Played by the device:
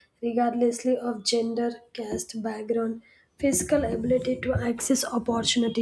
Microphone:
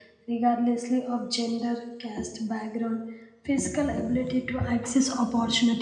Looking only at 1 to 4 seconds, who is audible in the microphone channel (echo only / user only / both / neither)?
echo only